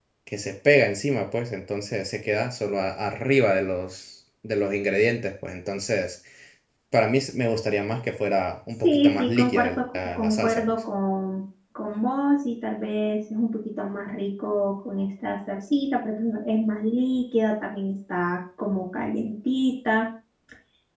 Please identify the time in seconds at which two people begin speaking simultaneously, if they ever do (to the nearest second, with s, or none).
9 s